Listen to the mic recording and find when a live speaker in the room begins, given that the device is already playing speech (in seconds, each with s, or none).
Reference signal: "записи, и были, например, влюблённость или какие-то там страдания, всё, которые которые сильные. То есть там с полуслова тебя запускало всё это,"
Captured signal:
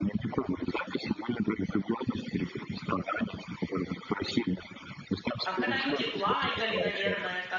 5.4 s